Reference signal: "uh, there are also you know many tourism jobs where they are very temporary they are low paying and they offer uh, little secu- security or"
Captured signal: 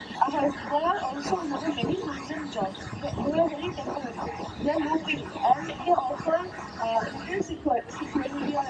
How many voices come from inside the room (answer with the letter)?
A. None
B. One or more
A